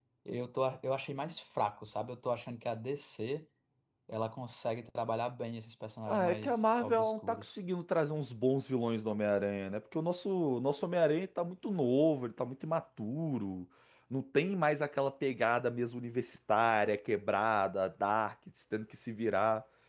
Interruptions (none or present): present